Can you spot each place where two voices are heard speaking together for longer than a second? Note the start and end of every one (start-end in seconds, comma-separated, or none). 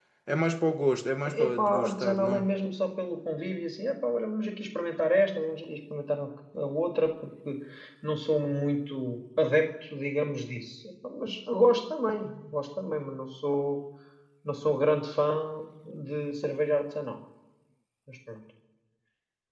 1.2-2.5